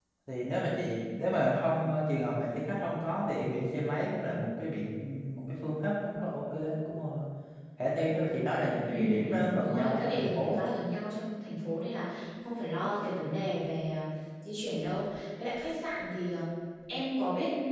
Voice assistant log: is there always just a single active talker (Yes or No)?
No